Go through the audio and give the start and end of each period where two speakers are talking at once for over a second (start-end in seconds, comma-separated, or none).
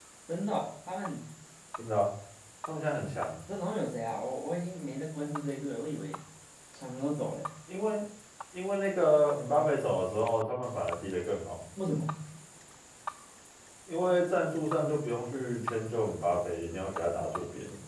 none